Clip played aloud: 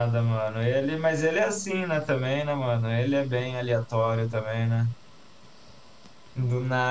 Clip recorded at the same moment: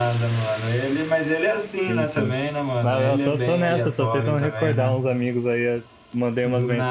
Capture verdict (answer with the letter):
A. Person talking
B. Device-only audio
A